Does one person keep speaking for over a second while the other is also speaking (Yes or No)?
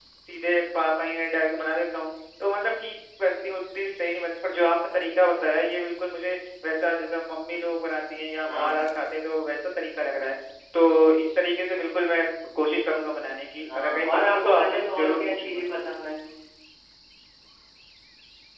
Yes